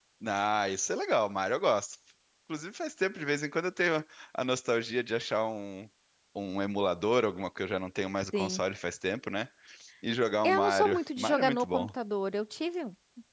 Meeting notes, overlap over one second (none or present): present